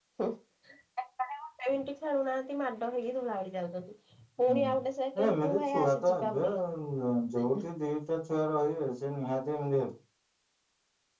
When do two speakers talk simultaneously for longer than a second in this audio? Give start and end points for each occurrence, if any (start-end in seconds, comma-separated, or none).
5.2-6.6